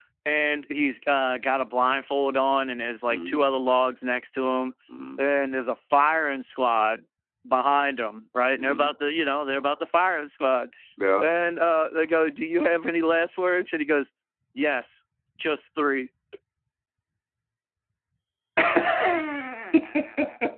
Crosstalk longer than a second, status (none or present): none